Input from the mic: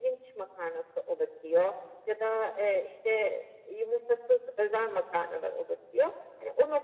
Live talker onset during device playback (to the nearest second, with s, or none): none